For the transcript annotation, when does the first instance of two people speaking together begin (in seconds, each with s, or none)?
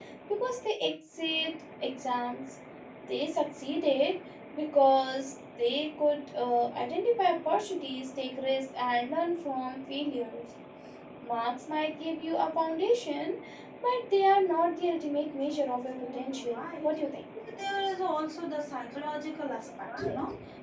15.5 s